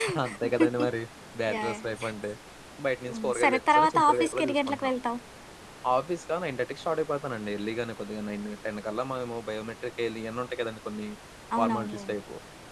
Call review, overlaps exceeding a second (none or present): present